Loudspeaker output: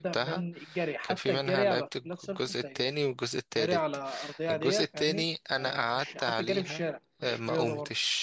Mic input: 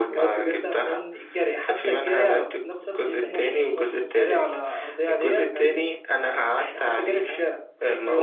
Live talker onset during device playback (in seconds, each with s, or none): 3.0 s